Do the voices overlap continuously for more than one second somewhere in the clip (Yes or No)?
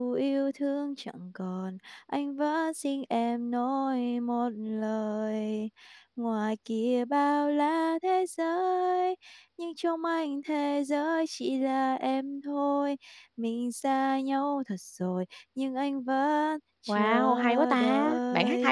Yes